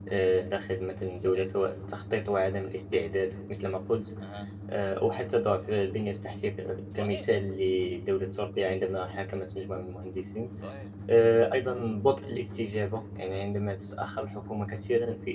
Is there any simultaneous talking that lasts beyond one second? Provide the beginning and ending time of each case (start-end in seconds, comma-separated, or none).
none